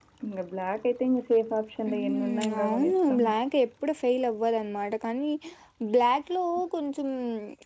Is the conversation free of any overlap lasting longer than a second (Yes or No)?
No